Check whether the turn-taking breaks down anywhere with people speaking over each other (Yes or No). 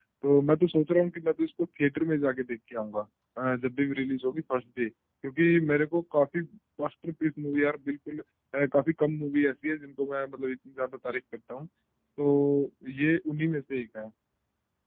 No